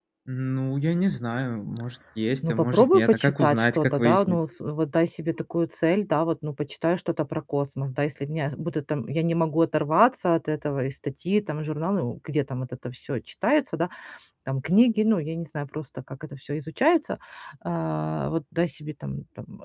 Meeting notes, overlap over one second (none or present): present